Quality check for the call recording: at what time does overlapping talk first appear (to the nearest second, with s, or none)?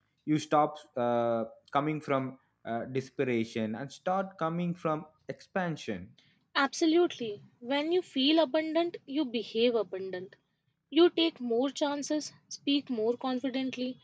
none